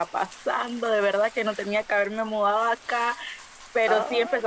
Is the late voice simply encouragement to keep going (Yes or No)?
Yes